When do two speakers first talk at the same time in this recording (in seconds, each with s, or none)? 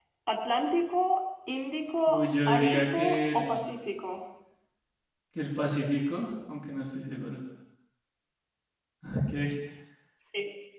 2.1 s